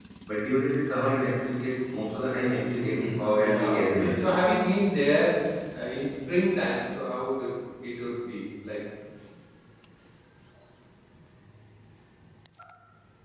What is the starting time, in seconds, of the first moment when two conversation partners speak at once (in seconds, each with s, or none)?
2.7 s